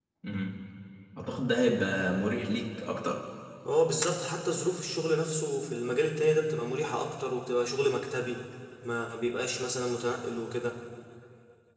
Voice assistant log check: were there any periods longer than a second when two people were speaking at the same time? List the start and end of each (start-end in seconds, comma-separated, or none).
none